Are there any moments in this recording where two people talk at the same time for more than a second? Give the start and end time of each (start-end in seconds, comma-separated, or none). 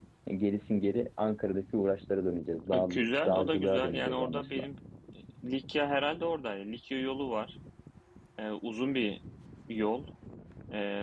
3.2-4.7